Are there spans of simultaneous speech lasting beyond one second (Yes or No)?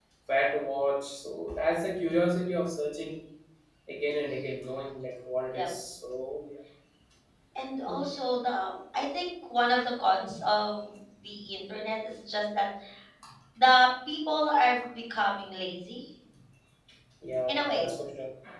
No